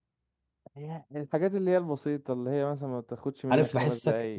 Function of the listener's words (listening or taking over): taking over